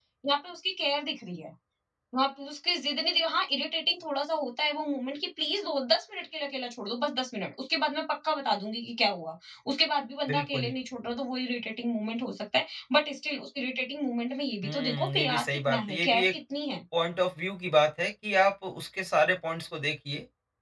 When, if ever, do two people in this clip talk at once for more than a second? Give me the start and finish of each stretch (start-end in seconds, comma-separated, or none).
14.6-16.3